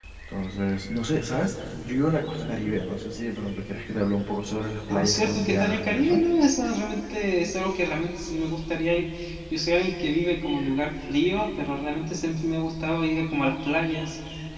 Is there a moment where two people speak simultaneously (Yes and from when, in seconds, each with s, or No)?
Yes, from 4.9 s